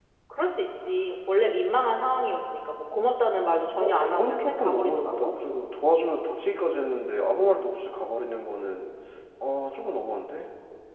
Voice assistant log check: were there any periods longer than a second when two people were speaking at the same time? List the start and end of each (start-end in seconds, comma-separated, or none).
3.8-5.3